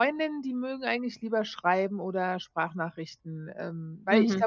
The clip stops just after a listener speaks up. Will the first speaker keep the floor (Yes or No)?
No